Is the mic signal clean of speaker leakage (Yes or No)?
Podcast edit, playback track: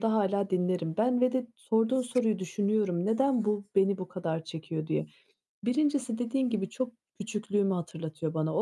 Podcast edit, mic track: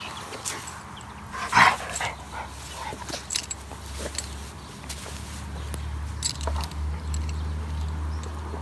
Yes